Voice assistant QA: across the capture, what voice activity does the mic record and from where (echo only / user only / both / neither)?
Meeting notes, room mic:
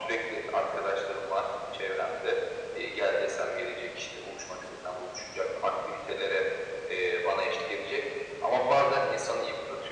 echo only